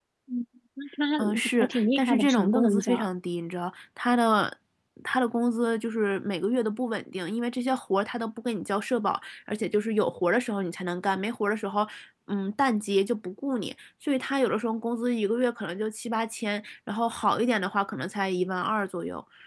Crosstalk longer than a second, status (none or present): present